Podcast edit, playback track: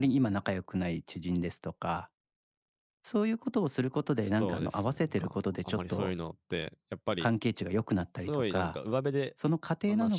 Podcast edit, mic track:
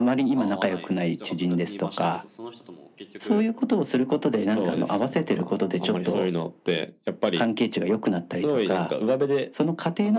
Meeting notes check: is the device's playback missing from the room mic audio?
No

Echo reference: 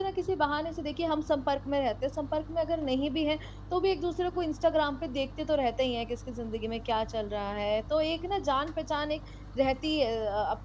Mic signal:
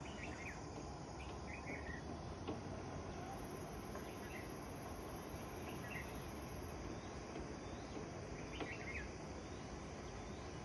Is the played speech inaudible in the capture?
Yes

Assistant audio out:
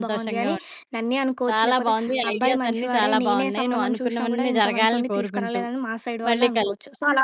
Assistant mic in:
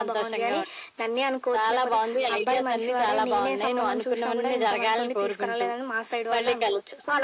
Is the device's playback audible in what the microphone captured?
Yes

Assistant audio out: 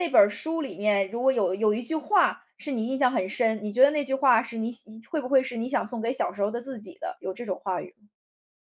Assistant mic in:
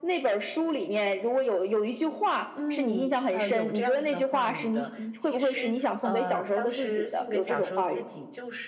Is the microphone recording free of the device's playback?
No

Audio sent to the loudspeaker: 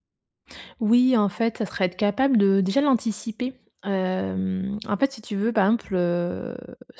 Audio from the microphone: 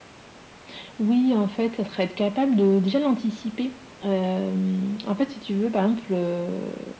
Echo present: Yes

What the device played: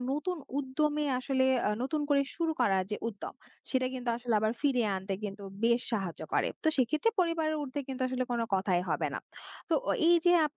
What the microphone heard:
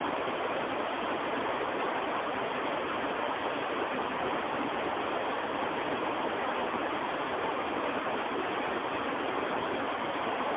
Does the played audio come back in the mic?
No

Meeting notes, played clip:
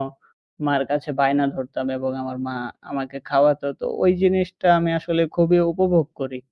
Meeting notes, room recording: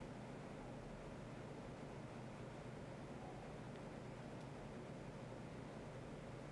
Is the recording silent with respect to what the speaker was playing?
Yes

